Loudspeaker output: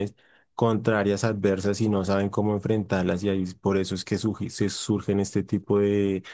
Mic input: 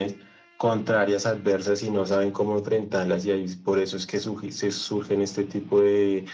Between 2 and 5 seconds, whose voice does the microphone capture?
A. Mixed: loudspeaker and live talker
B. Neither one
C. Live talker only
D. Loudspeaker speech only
D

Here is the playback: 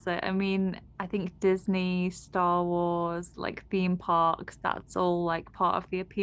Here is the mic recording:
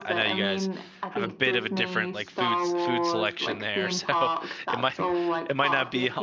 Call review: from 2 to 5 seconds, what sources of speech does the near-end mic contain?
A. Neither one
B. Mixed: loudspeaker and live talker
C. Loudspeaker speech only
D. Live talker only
B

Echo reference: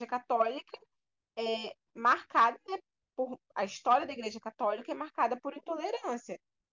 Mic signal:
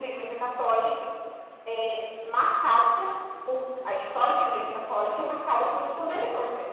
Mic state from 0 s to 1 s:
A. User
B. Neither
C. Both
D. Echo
D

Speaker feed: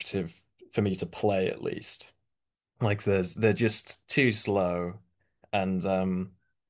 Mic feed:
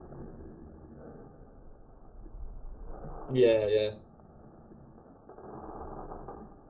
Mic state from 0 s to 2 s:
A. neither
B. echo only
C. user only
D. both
A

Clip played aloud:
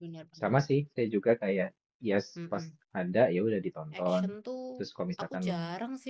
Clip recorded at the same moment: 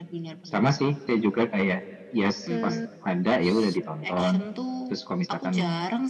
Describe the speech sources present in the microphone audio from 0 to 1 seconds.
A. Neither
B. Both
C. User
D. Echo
D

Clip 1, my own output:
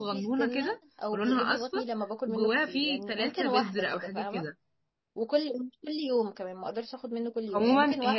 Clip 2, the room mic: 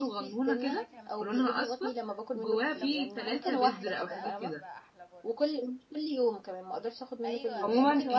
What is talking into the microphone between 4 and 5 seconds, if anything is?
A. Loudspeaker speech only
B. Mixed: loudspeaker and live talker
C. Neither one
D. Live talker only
B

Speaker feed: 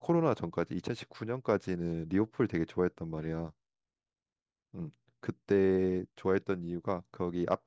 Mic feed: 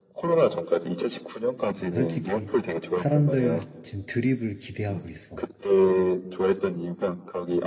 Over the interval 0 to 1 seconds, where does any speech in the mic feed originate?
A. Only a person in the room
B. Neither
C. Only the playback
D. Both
C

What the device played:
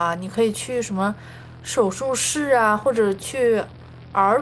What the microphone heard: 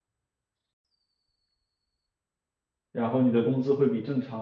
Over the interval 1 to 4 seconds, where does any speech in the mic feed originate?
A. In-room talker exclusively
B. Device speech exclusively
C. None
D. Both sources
A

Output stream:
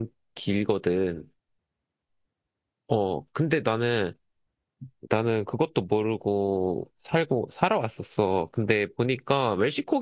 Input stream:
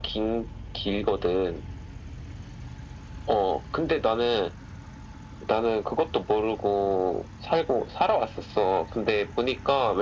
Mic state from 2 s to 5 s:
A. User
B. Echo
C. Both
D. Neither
B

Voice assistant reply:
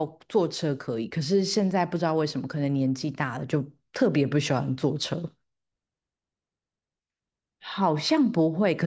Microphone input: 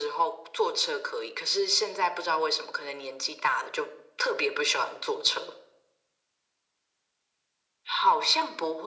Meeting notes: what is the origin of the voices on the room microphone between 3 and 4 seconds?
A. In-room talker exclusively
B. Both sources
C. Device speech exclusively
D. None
C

